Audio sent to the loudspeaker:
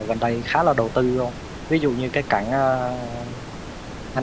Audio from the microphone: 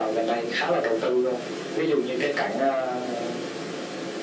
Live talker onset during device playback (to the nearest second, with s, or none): none